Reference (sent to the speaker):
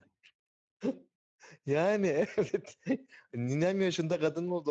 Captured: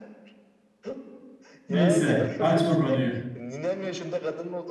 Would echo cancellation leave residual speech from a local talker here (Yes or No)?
Yes